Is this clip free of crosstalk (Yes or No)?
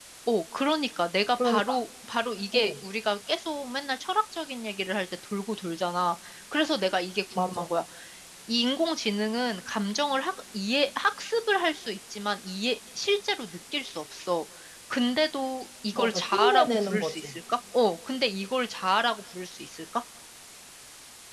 No